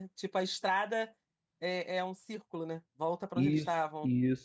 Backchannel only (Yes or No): No